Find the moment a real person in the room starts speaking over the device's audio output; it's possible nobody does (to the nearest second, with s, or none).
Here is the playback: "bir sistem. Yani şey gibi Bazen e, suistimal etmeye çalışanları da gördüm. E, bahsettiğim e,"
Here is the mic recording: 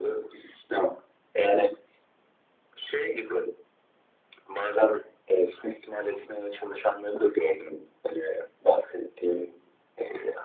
none